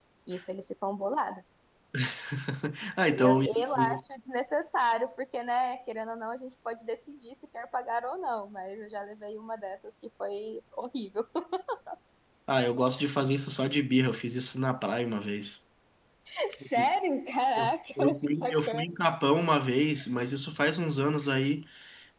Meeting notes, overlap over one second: present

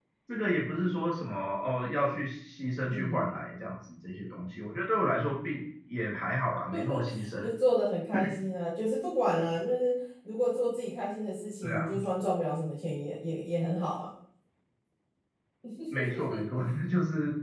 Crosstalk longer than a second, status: none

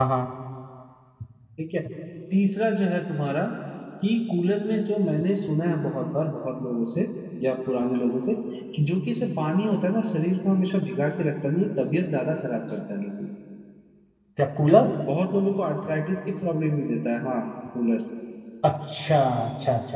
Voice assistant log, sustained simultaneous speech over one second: none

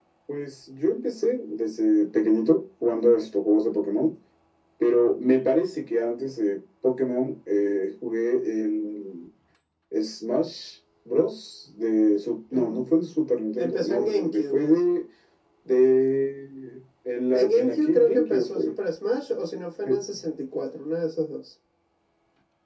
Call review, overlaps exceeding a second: present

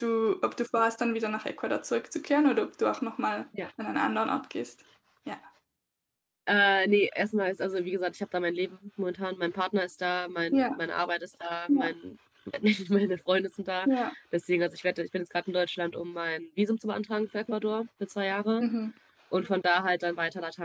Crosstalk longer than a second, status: none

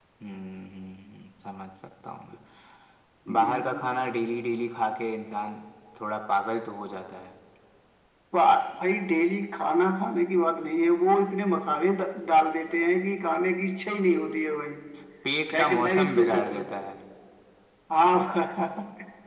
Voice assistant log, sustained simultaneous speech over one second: present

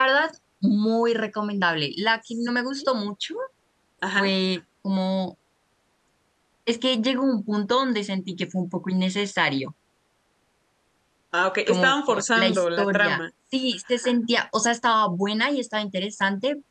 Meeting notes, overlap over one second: present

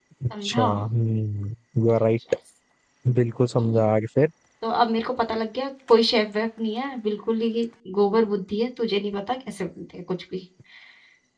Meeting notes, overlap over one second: none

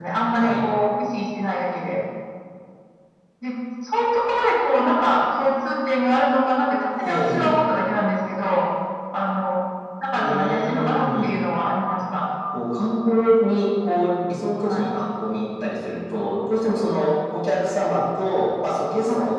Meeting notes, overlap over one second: present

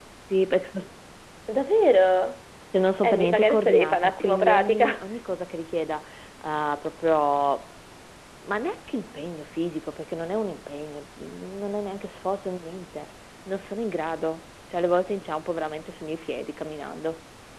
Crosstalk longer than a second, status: present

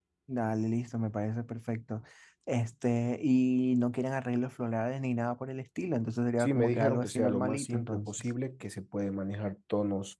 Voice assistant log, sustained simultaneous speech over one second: present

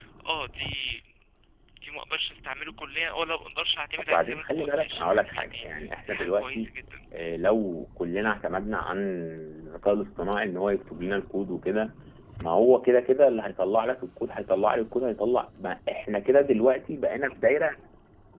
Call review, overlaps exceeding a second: present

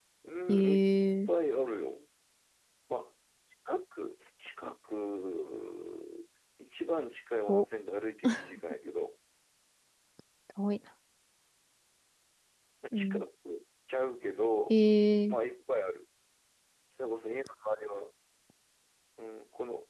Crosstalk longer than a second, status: none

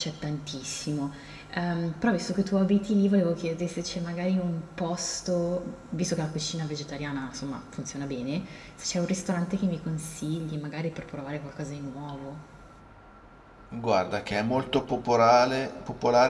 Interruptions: none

